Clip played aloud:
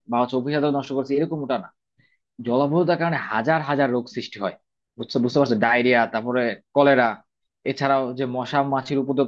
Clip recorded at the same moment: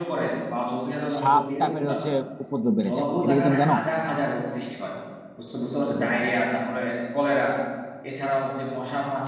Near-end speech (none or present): present